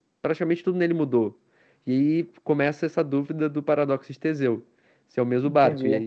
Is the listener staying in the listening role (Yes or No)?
No